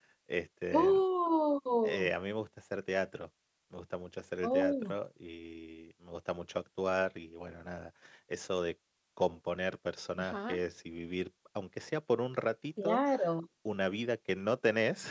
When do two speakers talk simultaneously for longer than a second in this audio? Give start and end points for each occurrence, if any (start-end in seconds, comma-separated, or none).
none